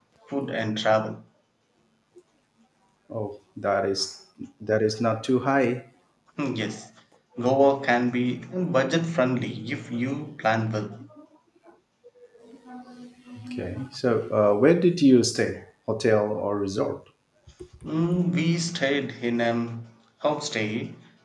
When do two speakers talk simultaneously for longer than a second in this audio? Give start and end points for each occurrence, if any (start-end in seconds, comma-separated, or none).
none